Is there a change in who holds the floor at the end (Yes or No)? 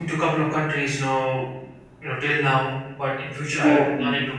No